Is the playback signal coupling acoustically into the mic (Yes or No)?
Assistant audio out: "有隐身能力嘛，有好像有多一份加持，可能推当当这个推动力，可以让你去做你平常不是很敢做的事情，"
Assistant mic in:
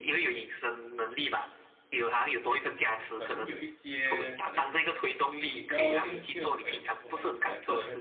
Yes